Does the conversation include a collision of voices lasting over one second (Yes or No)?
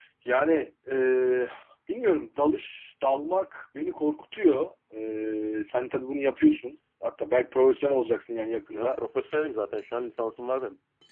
No